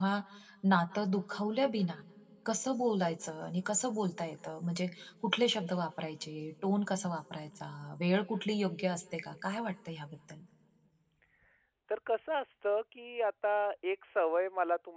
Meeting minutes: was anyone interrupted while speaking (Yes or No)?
No